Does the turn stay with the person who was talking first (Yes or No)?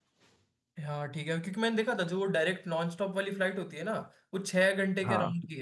Yes